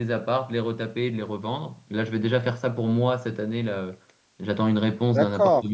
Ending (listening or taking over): taking over